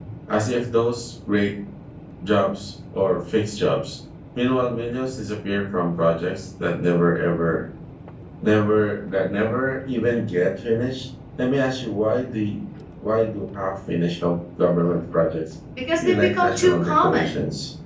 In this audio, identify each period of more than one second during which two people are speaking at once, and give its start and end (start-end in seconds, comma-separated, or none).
16.0-17.3